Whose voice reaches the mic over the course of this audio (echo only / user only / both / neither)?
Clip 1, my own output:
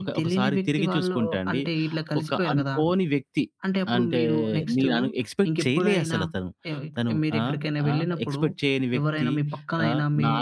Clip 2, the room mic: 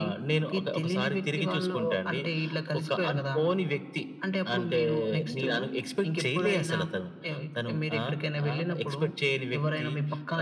echo only